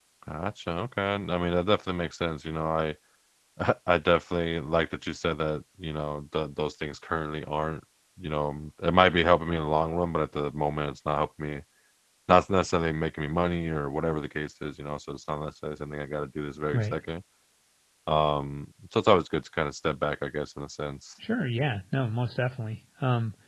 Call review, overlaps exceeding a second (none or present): none